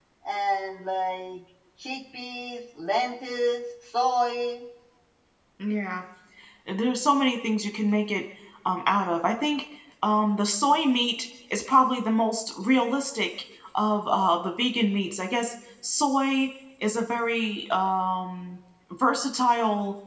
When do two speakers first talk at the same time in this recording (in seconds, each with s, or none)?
none